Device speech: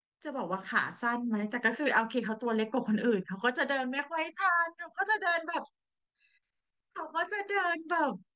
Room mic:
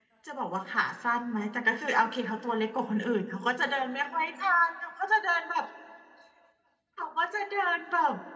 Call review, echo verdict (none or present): present